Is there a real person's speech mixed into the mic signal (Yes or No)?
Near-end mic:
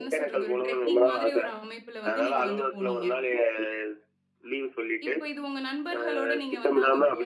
Yes